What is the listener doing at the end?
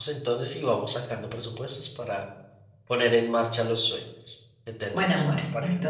taking over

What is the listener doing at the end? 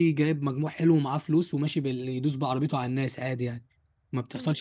taking over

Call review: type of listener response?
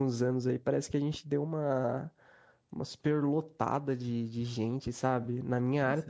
listening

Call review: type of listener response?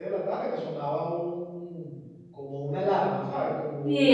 taking over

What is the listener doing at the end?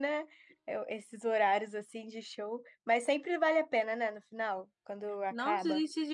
taking over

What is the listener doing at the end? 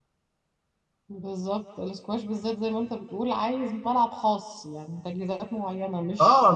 taking over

